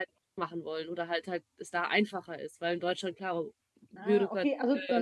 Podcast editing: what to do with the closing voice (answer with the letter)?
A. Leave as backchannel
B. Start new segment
B